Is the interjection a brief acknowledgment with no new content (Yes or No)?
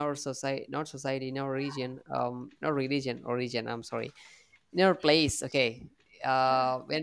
Yes